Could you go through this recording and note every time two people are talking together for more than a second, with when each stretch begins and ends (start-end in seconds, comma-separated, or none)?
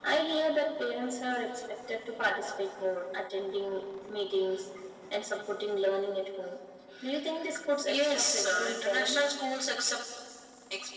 7.8-9.2